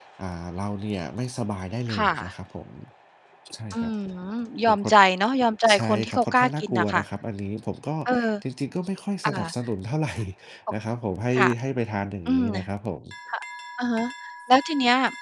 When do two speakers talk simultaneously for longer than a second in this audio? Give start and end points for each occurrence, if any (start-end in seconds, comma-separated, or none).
5.7-7.0